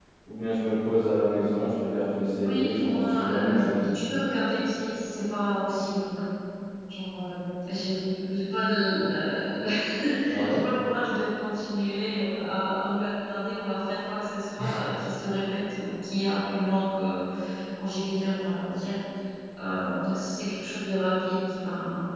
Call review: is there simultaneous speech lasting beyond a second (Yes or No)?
Yes